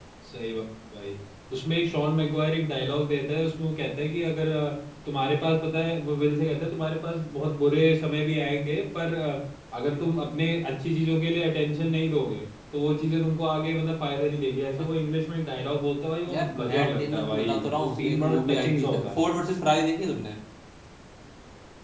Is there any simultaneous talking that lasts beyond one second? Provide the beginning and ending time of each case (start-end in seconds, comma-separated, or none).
16.3-19.1